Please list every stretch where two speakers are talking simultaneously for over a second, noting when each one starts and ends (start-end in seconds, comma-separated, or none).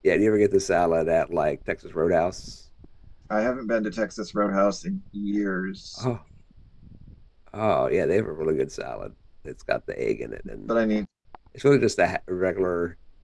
none